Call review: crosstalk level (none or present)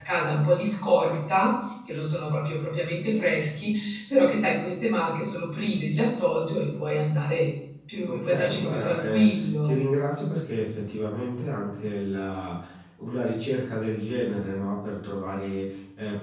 present